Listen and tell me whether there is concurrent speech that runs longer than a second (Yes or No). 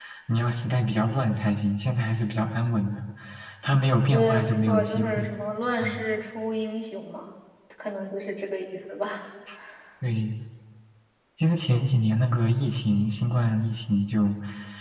Yes